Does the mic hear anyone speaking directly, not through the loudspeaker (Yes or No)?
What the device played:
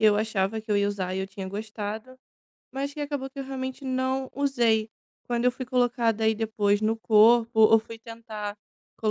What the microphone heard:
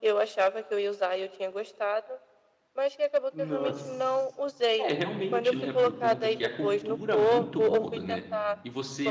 Yes